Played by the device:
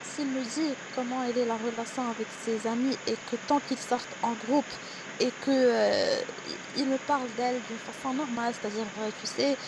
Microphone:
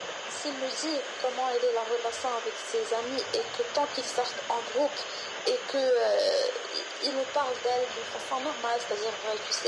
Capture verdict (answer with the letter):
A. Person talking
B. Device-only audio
B